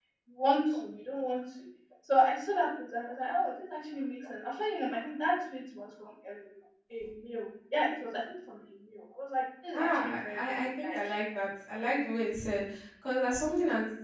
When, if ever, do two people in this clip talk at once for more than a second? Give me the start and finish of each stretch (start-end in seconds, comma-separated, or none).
9.7-11.0